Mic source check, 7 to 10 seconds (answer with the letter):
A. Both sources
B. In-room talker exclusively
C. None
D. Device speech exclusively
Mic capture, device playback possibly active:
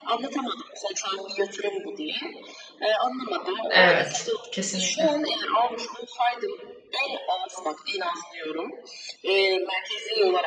D